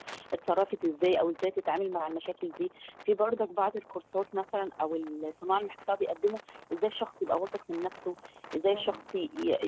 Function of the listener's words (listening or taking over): listening